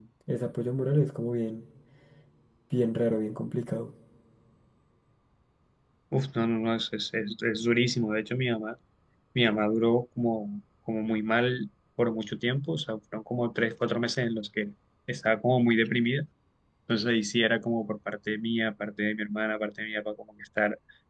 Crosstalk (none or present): none